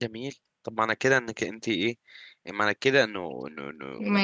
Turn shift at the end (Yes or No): Yes